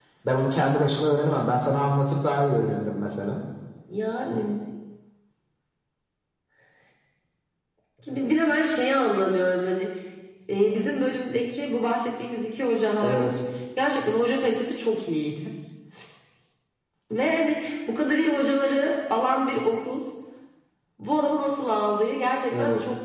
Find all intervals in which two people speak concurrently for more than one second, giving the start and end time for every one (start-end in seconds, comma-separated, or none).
none